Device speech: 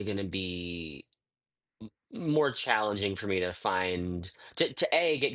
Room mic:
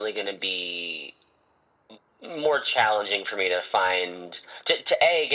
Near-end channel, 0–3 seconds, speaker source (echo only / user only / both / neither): echo only